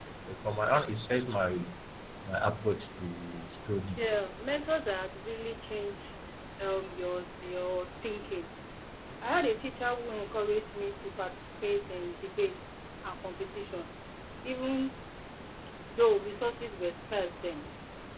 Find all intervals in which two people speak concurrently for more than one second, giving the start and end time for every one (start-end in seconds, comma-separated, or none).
none